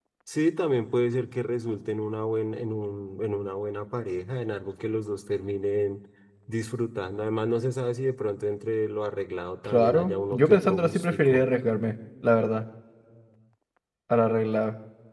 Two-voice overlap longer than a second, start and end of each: 9.6-11.4

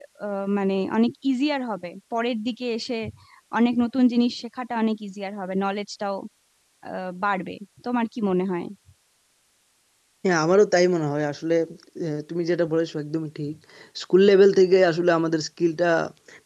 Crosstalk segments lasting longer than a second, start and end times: none

